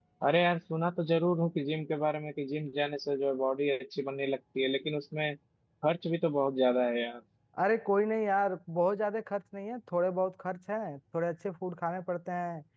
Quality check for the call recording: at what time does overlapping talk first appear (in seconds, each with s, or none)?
none